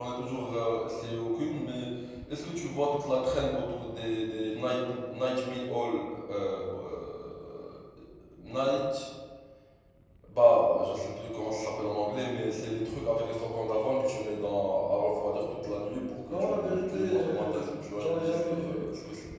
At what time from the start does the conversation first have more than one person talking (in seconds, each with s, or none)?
16.3 s